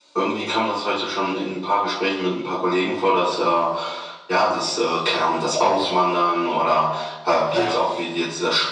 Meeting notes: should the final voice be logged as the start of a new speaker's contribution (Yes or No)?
No